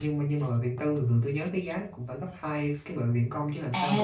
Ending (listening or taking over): taking over